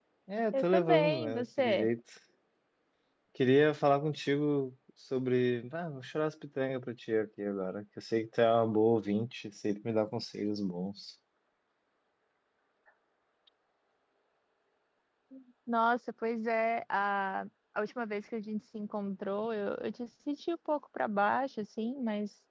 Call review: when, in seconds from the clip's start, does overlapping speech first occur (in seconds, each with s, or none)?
0.5 s